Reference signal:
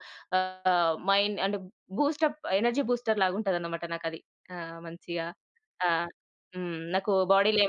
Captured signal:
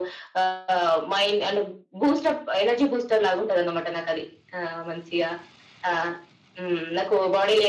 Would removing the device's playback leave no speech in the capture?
Yes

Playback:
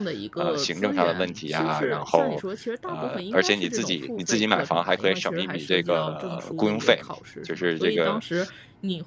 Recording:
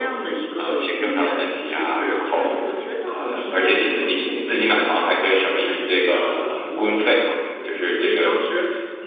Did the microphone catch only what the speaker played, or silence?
Yes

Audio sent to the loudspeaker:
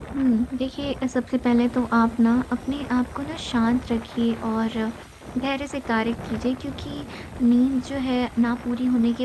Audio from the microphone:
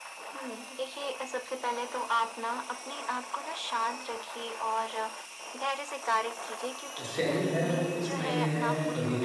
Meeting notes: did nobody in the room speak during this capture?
No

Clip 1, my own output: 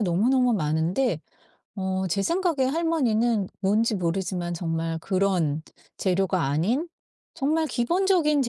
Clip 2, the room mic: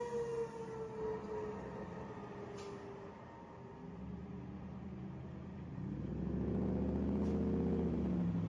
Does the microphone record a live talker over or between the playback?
No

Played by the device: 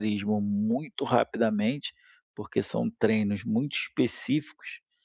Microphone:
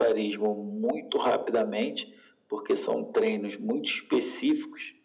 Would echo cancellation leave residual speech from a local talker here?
No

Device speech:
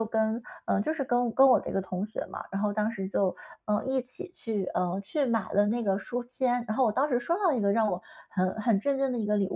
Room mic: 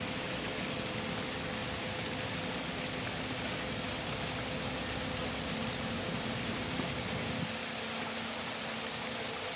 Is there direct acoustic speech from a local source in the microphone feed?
No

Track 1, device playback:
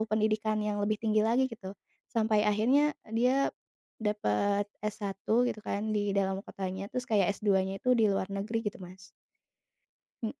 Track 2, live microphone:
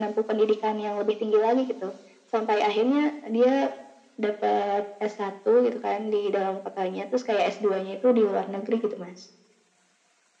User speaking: No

